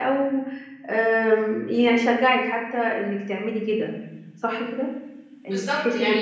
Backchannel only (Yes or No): No